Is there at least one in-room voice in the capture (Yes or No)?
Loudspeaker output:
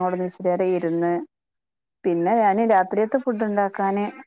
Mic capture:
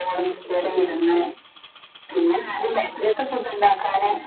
No